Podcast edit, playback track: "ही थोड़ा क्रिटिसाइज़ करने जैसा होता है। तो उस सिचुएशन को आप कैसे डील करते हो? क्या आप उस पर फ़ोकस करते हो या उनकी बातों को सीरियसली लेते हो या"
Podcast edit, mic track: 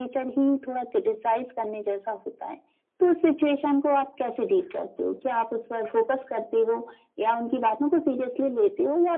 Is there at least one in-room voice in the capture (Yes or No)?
No